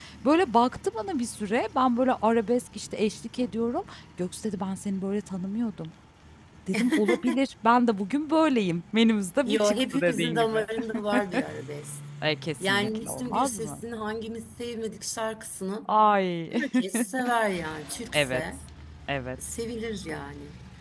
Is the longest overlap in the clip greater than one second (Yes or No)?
Yes